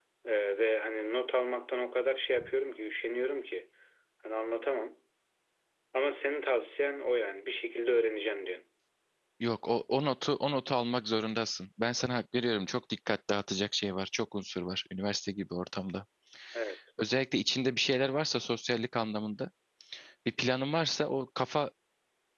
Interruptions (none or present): none